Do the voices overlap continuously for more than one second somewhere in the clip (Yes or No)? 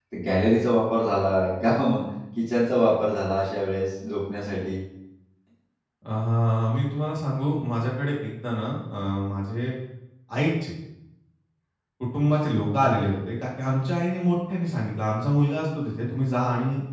No